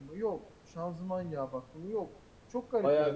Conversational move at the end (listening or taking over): taking over